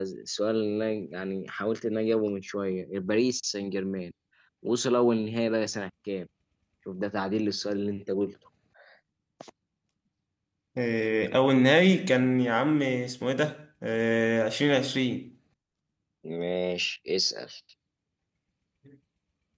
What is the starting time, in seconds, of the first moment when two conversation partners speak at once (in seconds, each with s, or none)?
none